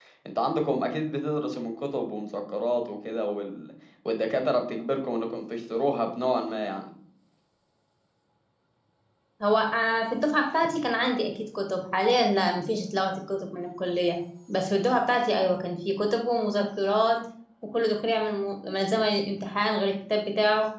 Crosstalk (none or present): none